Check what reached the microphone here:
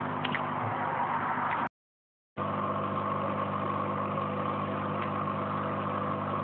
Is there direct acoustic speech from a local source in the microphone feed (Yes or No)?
No